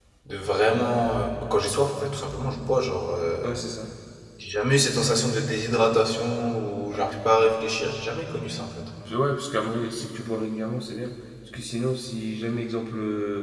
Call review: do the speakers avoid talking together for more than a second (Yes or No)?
Yes